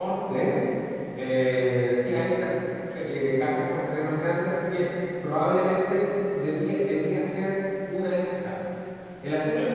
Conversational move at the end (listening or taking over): taking over